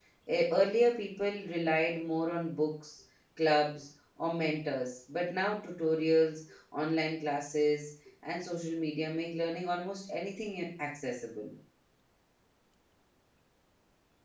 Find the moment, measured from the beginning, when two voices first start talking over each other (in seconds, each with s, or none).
none